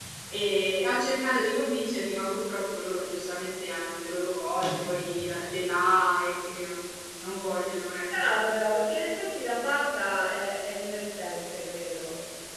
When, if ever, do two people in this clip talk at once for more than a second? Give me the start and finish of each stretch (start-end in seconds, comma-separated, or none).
none